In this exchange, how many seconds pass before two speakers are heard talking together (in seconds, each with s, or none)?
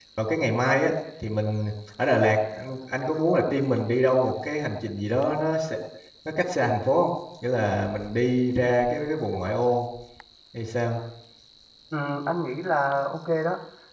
none